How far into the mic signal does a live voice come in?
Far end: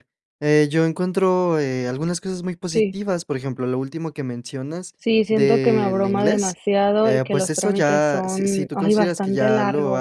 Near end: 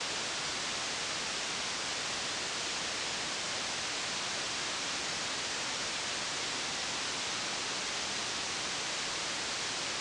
none

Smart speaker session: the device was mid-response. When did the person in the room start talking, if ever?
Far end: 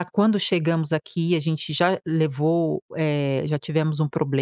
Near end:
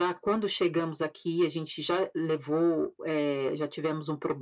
none

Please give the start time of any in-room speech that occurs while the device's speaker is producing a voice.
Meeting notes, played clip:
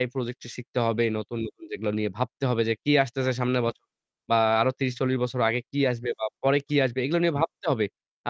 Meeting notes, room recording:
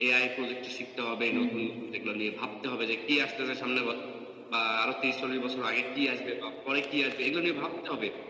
1.3 s

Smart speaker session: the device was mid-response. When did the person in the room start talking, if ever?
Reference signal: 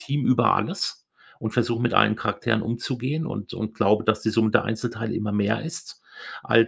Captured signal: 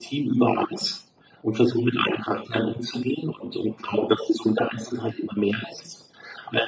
none

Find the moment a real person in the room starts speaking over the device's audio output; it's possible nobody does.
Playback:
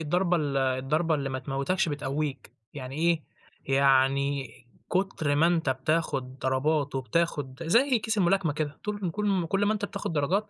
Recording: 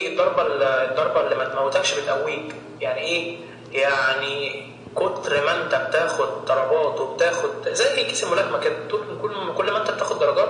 none

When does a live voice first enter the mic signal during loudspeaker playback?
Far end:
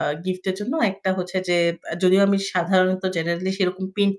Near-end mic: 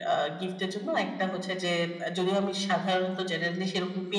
none

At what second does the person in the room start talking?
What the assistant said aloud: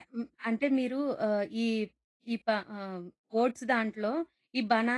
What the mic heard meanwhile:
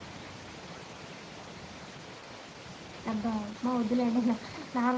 3.1 s

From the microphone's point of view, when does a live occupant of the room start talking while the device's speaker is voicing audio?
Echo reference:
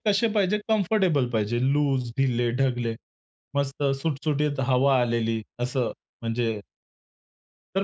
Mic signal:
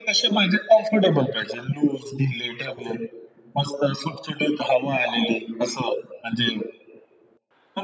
none

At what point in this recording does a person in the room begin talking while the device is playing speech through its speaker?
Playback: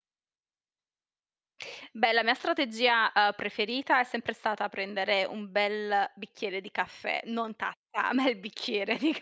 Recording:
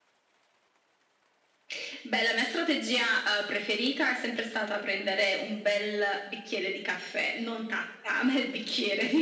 none

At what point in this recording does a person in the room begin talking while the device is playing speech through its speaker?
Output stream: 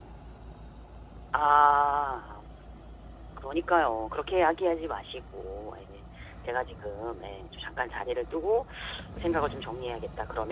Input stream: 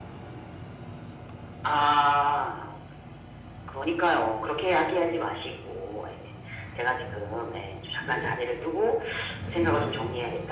8.0 s

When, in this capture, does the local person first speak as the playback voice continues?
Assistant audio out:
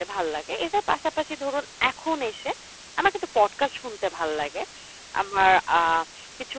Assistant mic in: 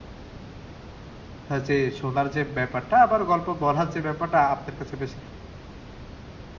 1.5 s

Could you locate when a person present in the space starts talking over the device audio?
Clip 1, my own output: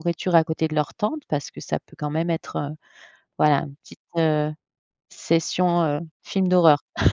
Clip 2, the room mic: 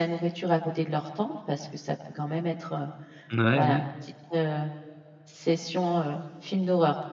3.3 s

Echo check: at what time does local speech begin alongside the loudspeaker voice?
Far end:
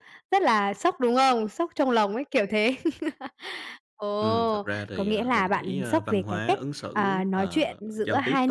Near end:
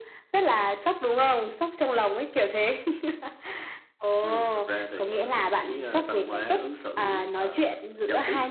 none

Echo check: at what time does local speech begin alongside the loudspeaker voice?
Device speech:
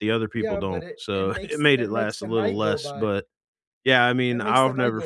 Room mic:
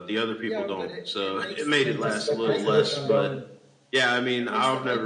1.8 s

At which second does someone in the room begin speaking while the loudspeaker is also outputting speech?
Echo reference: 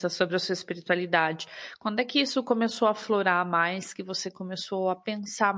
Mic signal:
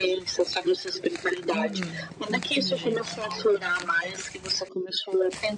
1.5 s

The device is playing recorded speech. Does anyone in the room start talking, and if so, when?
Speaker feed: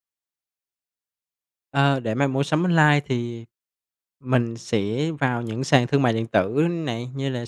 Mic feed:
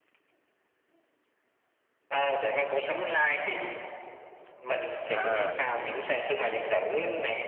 5.1 s

